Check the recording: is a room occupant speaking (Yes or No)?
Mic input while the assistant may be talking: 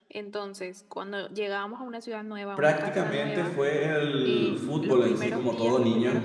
Yes